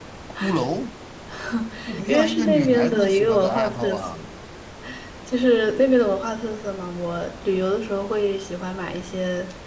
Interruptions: present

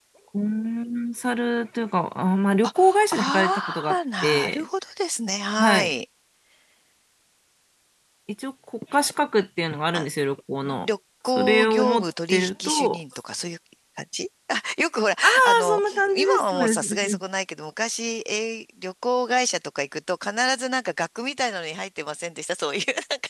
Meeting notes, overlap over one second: present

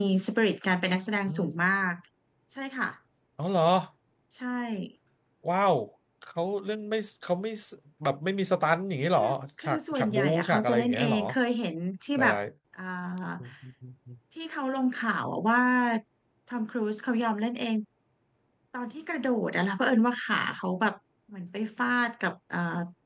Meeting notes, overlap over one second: present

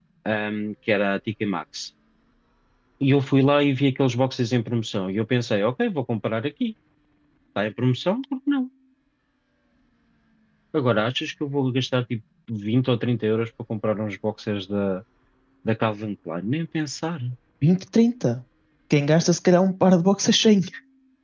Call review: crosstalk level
none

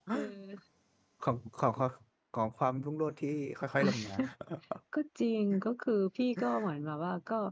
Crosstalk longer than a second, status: none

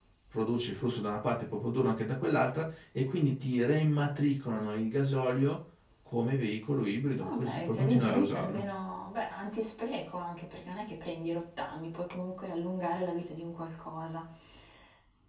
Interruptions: present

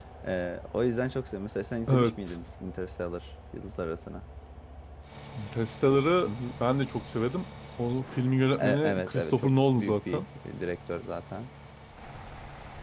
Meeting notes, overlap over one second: present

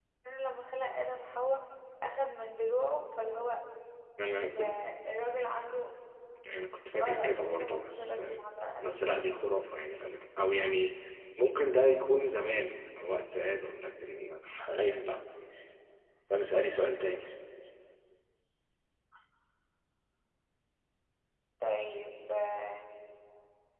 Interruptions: present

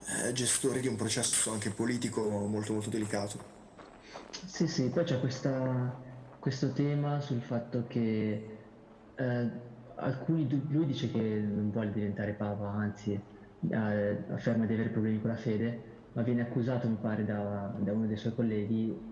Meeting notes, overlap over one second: none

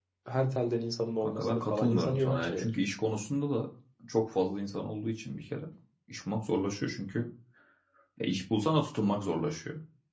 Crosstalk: present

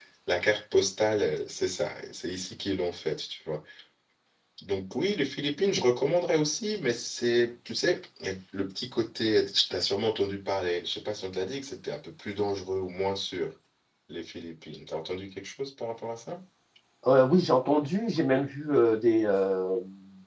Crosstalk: none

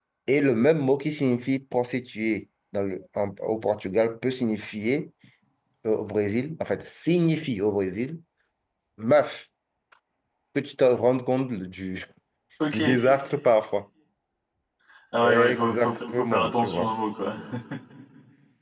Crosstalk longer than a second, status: present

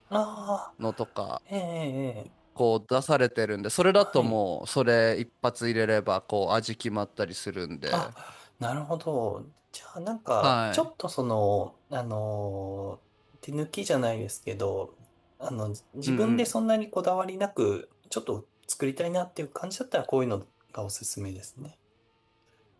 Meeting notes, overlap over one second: none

